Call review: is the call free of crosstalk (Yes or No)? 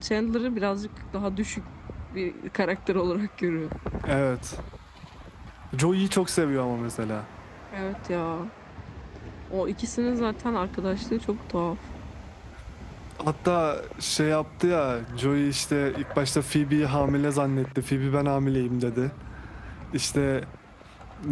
Yes